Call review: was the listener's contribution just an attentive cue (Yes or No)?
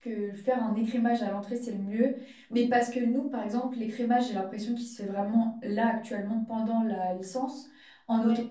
Yes